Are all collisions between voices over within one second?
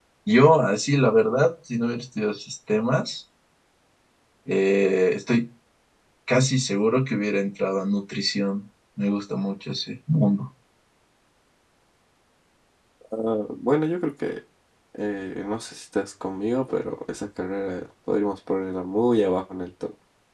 Yes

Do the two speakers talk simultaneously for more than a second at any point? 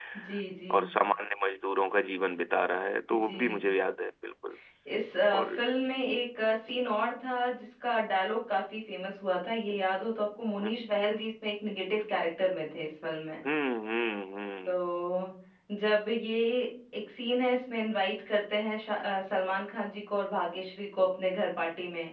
No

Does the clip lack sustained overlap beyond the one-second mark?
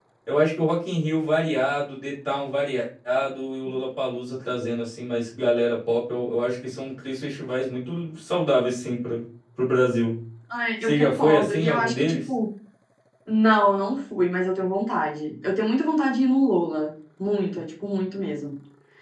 No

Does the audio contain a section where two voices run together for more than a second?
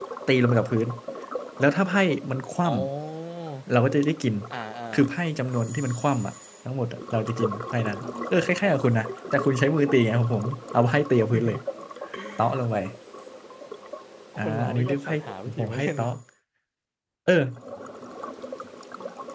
Yes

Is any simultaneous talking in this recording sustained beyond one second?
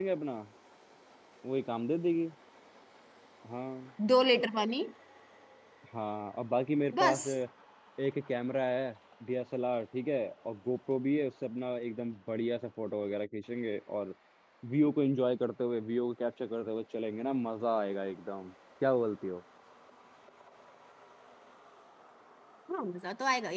No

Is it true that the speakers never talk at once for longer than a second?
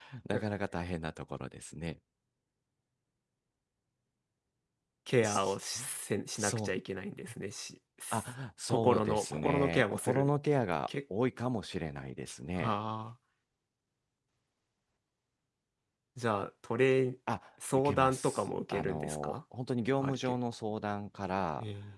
No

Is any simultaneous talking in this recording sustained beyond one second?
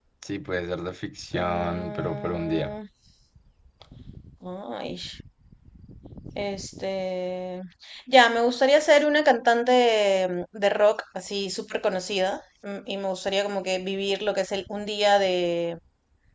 Yes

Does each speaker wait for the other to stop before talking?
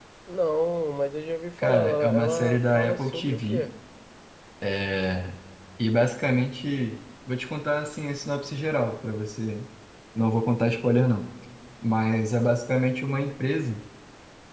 No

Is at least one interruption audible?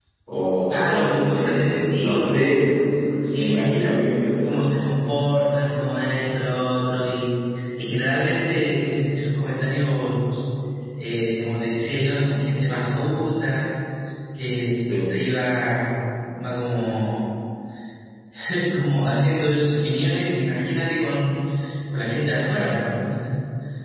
Yes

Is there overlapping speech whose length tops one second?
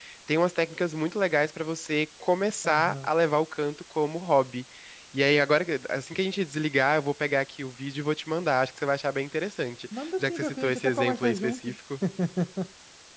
Yes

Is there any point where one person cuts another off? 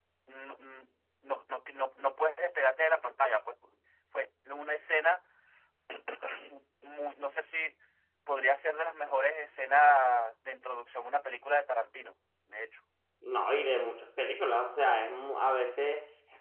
No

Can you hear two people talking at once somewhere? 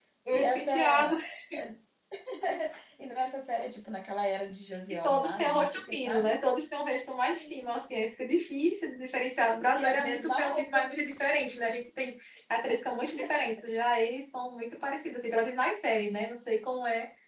Yes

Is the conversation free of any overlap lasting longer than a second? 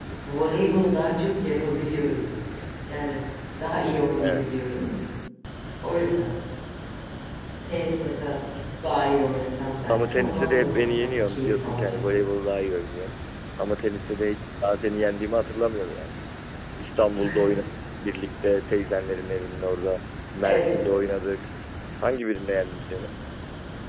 No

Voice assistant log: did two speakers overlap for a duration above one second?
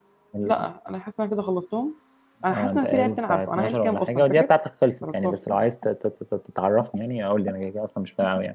Yes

